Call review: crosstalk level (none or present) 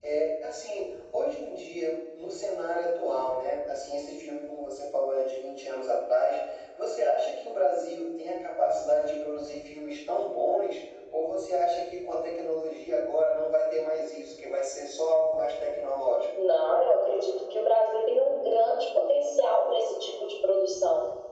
none